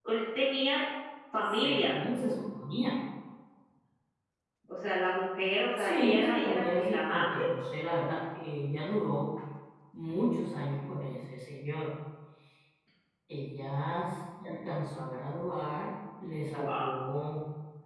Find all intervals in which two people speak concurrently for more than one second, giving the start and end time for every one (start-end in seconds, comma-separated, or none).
5.8-7.4